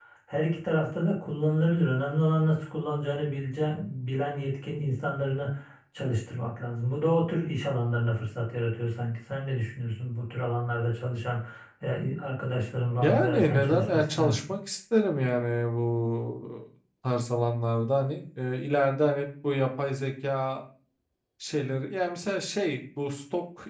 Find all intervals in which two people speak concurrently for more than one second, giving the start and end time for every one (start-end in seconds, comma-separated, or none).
13.0-14.3